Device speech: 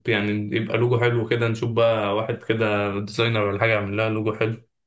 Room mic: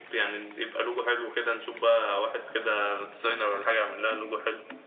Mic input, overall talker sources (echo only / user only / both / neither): echo only